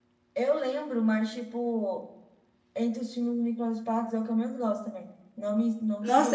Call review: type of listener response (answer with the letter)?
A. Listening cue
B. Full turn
B